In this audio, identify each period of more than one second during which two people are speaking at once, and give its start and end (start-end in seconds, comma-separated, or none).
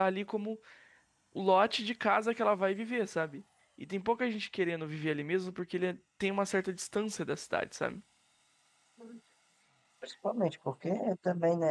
none